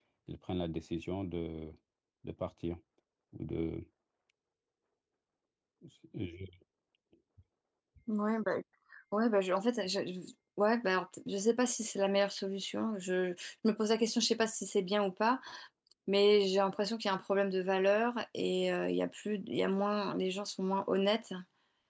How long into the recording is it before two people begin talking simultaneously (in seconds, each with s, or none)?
none